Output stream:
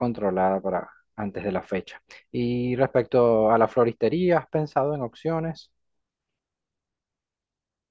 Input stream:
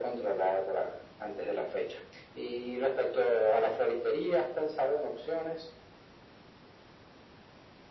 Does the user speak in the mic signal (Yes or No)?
No